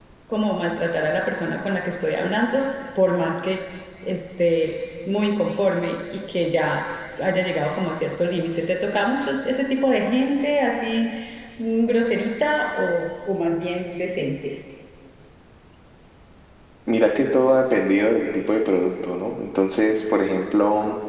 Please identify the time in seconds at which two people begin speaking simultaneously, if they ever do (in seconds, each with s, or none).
none